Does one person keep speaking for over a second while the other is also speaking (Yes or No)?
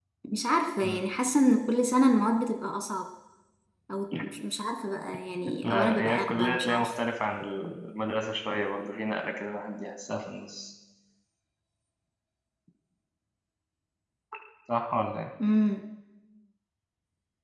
Yes